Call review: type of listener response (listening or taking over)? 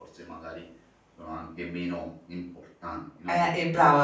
taking over